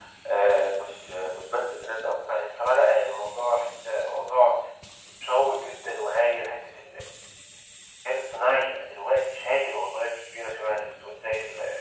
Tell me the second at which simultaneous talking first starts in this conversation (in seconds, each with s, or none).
none